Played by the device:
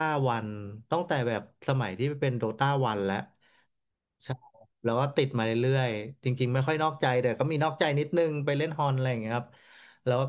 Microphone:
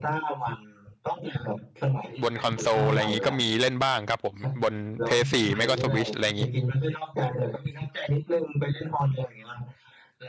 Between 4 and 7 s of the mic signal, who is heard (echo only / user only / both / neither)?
both